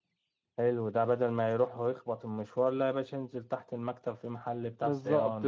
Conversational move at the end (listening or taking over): taking over